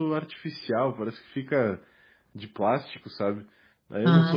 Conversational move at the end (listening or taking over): listening